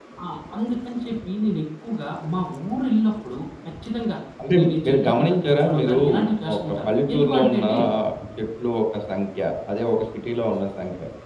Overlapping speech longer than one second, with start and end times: 4.6-6.0, 6.5-7.8

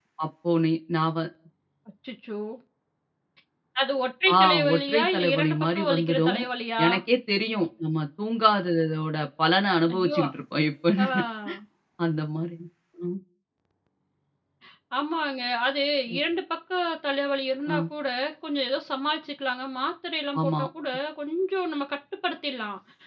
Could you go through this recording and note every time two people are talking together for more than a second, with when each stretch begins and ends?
4.4-6.4

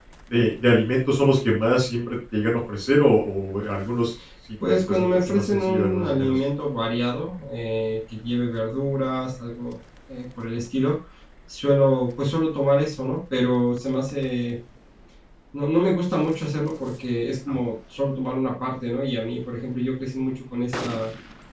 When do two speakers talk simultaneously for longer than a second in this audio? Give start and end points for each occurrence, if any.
4.9-6.3

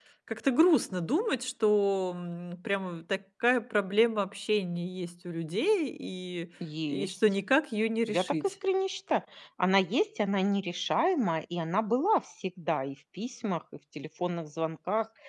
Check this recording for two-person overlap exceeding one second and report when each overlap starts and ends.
none

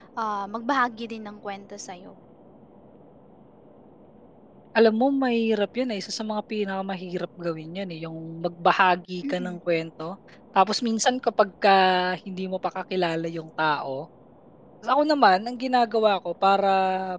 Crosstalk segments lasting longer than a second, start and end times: none

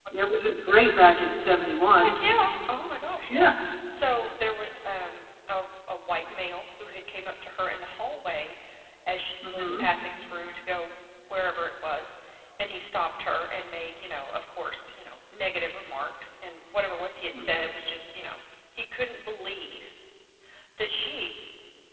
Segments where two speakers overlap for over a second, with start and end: none

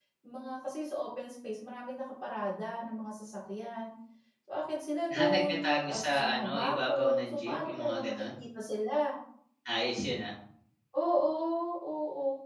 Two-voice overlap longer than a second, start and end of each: 5.2-8.2

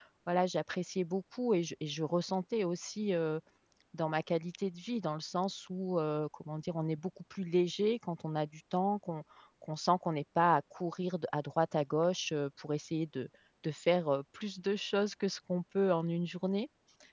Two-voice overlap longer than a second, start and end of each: none

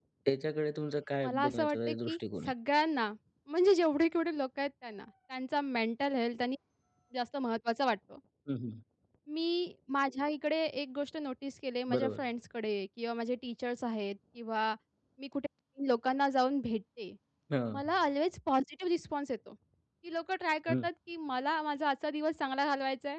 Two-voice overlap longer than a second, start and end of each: 1.2-2.5

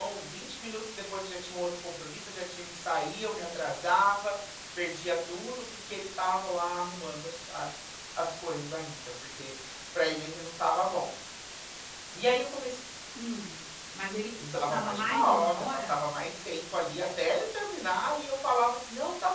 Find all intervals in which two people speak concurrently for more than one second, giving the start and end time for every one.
14.6-16.0

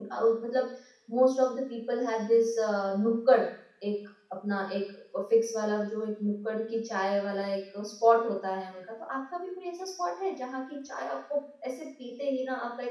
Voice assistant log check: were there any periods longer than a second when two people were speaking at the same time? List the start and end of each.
none

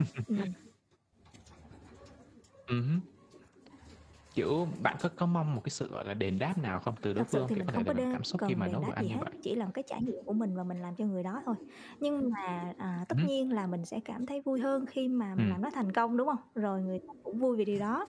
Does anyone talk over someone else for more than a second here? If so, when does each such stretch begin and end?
7.2-9.2

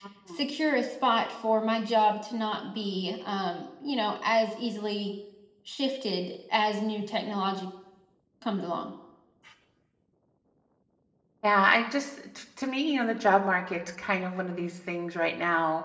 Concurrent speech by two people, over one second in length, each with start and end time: none

